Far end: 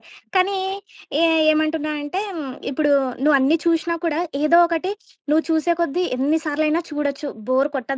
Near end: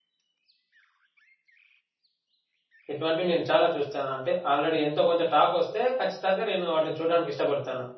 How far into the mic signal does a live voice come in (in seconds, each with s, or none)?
2.9 s